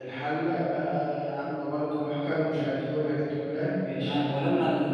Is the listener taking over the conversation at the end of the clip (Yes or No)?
Yes